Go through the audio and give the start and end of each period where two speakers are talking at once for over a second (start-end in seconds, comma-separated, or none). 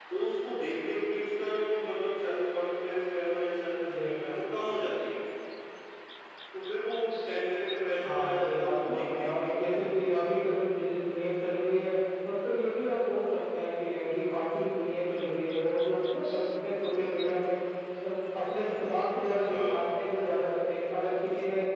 8.0-9.6